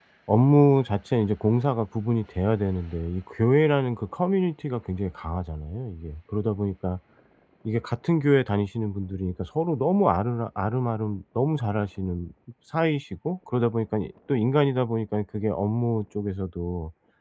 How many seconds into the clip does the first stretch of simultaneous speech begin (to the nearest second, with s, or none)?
none